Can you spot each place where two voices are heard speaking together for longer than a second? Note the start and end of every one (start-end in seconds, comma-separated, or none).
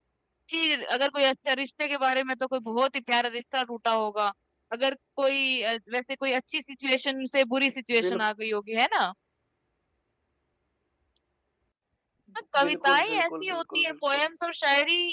12.6-14.2